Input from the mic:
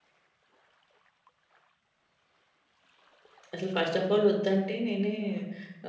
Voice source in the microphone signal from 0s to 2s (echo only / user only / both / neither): neither